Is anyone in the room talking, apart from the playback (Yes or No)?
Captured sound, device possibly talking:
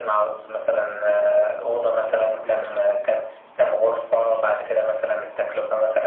Yes